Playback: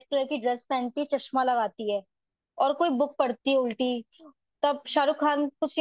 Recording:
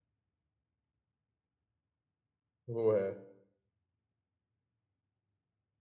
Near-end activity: present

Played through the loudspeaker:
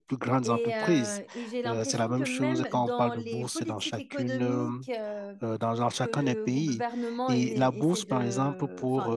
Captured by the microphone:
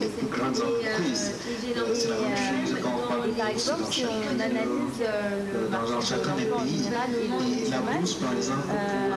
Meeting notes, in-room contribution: present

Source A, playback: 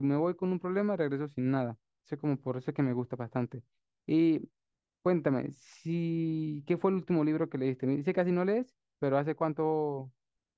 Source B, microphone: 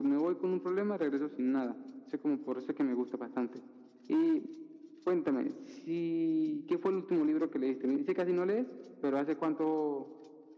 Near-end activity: none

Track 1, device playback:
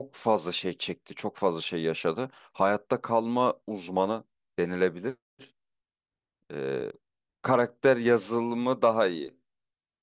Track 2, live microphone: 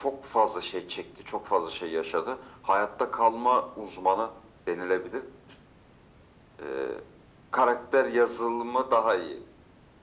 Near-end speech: none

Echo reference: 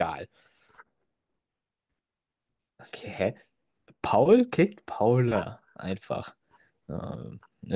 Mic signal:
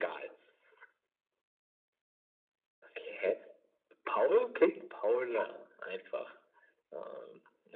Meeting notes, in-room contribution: none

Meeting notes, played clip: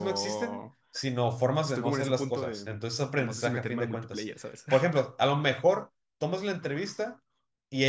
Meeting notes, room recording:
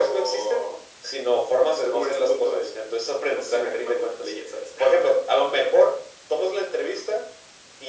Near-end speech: none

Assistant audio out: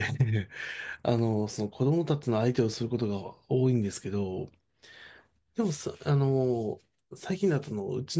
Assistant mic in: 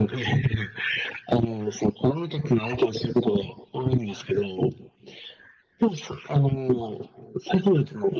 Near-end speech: none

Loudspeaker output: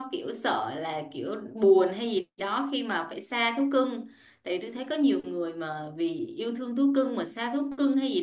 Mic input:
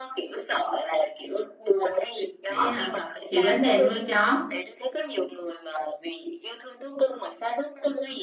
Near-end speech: present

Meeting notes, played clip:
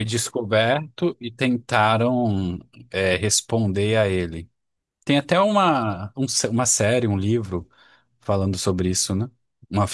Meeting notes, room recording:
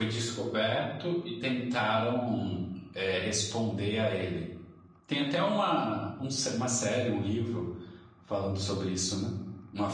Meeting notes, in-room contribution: none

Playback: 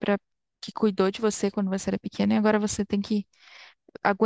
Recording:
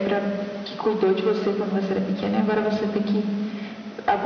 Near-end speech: none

